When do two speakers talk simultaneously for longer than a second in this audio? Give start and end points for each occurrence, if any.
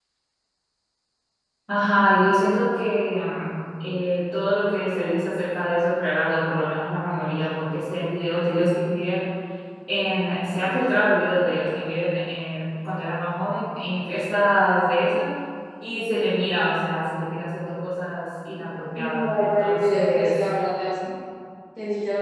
19.0-20.3

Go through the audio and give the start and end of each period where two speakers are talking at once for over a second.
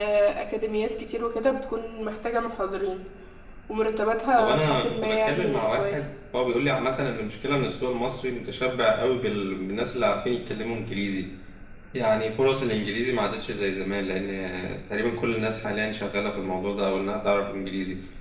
4.4-6.0

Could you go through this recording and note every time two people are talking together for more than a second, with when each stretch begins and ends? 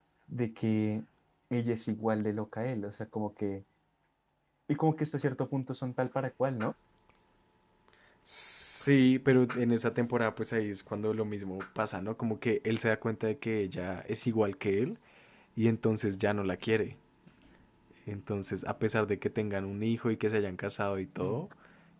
none

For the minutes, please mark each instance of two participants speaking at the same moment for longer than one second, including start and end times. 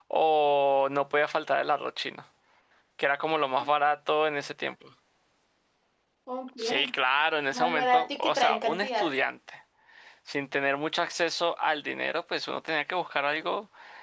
7.5-9.1

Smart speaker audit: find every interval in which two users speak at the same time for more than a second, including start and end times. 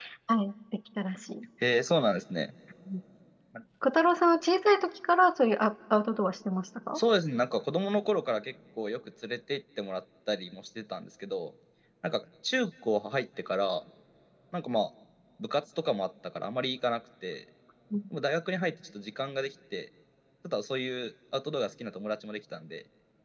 none

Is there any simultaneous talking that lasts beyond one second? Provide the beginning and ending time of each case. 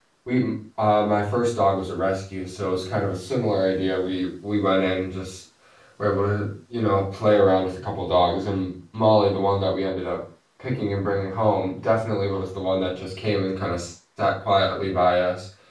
none

